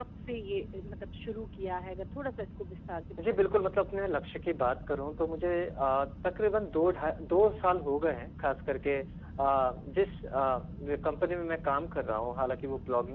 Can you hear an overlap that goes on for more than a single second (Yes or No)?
No